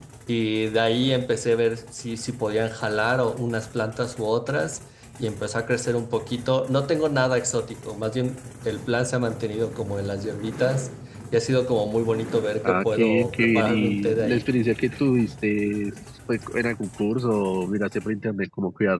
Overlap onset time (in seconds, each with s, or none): 12.6 s